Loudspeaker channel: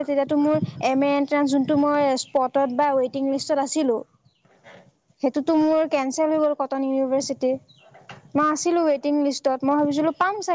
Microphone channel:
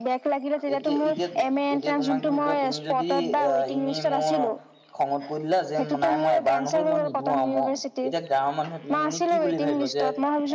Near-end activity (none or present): present